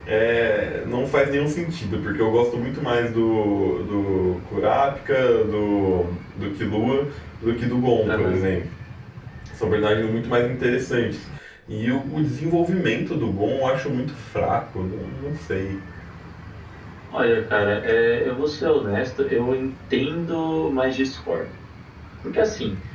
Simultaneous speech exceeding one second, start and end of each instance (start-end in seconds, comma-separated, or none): none